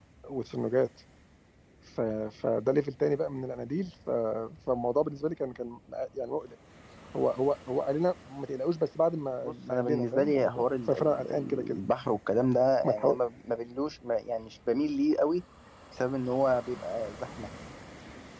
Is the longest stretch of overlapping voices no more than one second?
No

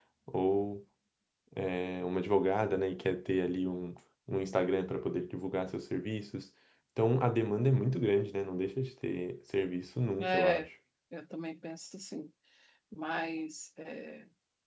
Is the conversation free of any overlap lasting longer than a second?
Yes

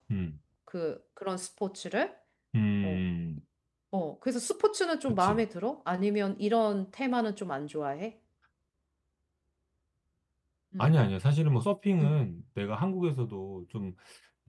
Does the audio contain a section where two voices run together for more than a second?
No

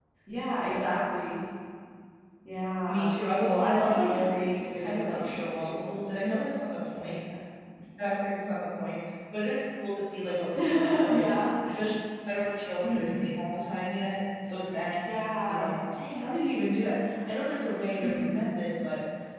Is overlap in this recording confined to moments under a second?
No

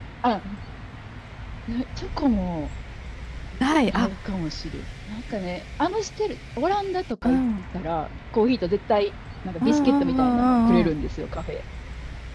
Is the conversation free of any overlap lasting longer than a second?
No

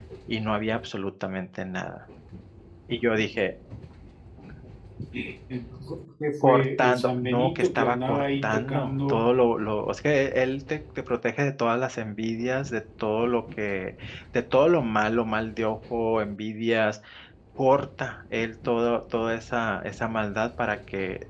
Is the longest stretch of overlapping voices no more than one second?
No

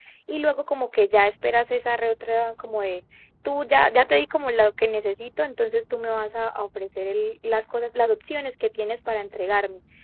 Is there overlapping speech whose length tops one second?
No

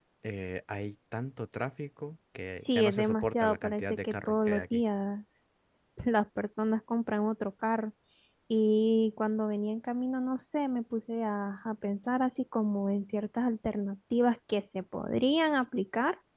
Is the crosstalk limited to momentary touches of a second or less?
No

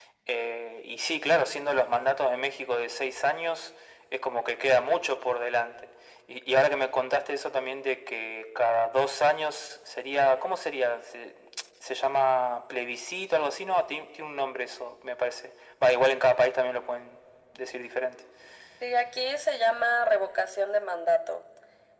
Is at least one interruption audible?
No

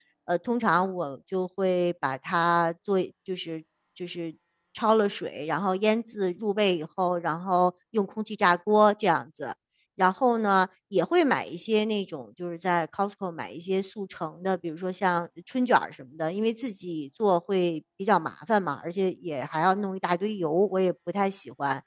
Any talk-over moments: No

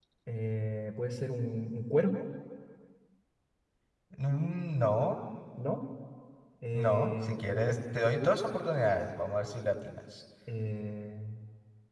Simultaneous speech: Yes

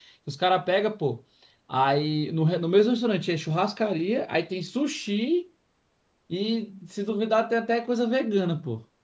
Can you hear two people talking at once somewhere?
No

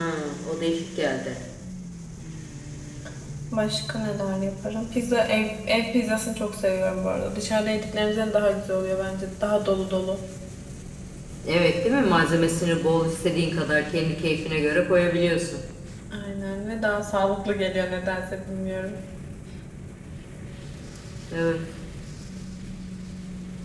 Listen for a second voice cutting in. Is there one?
No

